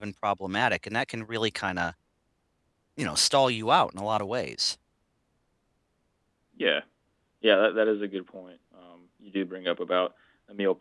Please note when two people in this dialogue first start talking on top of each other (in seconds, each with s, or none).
none